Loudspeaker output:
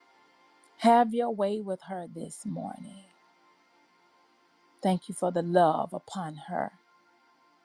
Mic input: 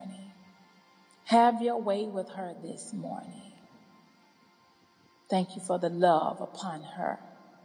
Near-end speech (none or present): none